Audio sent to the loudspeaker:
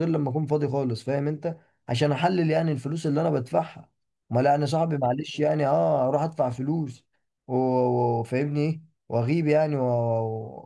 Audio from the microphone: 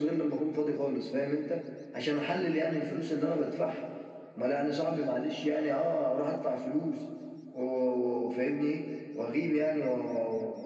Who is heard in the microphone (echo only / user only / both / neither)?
echo only